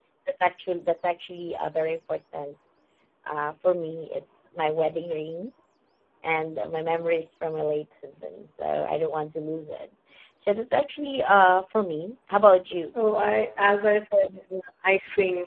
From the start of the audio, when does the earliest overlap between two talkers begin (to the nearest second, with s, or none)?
none